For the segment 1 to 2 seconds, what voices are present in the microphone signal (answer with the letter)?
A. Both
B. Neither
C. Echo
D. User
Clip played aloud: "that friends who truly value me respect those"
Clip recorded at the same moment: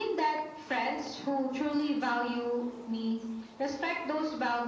C